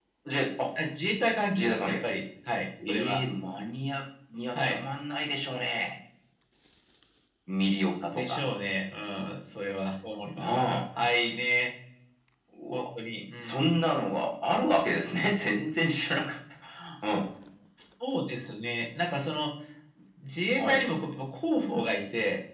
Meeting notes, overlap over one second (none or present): none